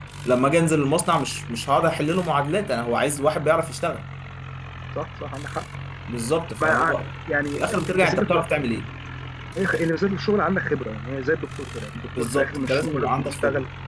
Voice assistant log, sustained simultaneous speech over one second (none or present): present